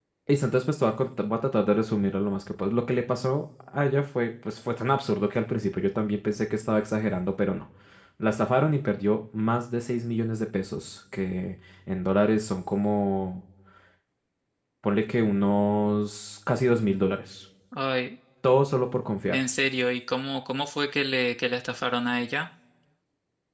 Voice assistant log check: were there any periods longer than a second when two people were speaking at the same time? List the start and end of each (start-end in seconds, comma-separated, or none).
none